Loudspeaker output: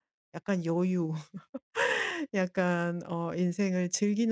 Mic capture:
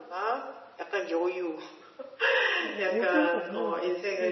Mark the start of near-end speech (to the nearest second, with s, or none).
3 s